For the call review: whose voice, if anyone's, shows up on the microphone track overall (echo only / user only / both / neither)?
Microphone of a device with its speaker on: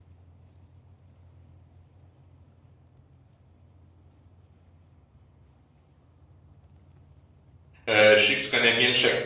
user only